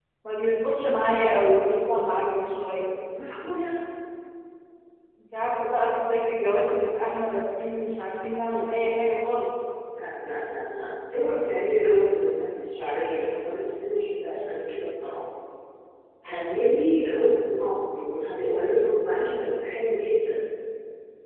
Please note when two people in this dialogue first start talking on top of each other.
none

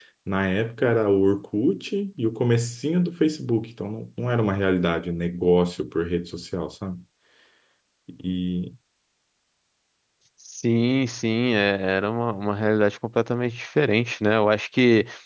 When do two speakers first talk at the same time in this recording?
none

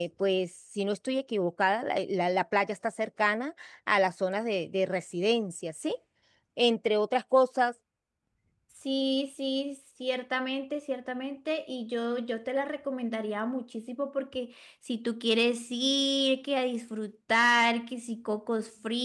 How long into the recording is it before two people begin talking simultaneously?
none

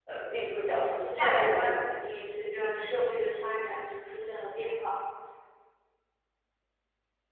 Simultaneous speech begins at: 0.5 s

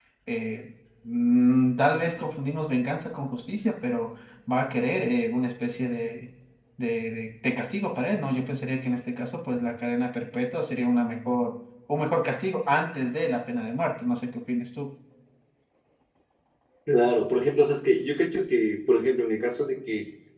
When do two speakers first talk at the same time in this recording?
none

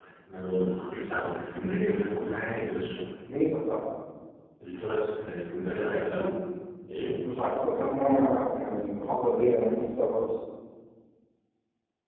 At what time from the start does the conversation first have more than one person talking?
none

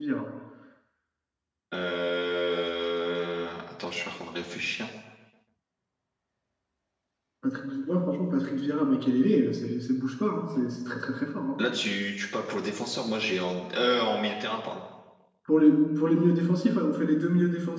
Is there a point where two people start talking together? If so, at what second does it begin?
none

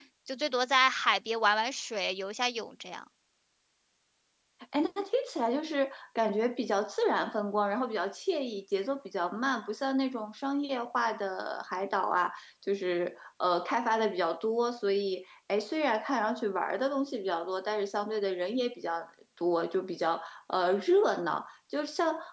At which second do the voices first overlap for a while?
none

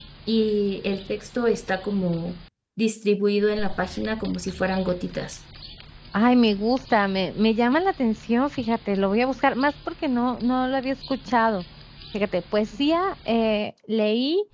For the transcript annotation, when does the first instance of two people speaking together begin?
none

